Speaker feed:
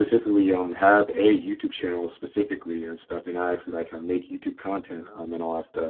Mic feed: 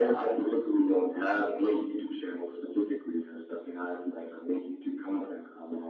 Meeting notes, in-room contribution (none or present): none